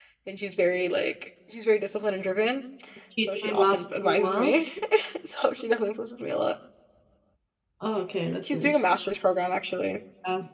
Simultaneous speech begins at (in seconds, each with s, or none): 3.2 s